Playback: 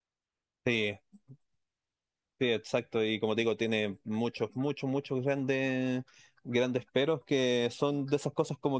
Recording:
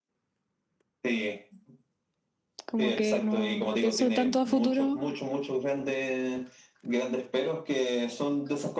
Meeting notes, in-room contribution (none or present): present